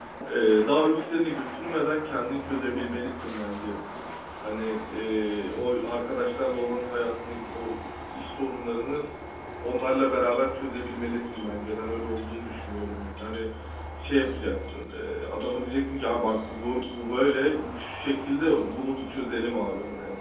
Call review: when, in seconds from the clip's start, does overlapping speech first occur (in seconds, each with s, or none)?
none